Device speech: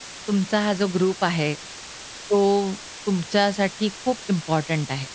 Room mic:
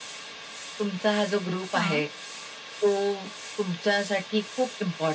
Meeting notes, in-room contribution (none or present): present